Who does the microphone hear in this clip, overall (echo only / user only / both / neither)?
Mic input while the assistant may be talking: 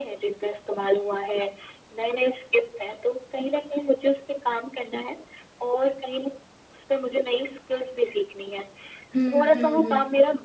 both